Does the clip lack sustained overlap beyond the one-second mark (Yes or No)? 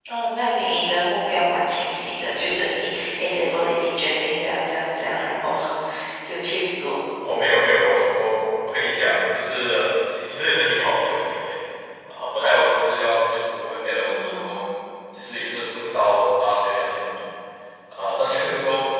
Yes